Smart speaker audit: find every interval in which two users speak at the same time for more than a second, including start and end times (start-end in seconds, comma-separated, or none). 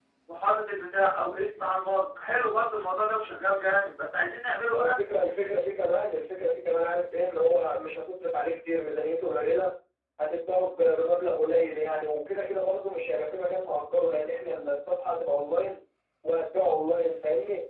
none